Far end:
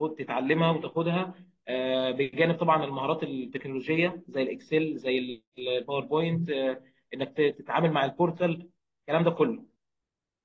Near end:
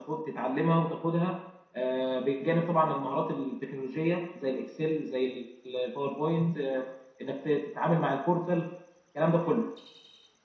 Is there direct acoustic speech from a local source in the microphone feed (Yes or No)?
No